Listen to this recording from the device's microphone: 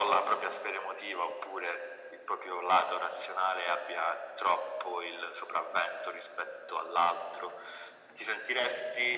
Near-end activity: none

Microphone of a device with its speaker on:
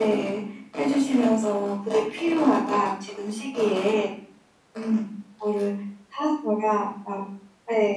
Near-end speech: none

